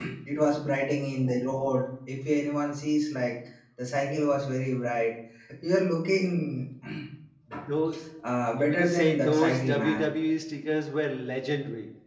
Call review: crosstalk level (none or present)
present